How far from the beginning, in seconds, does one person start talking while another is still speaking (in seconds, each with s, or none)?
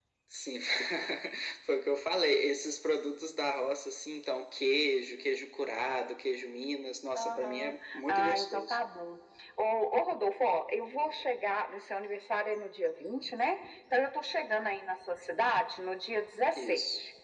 7.2 s